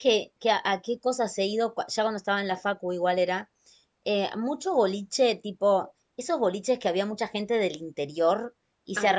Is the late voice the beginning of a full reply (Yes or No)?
No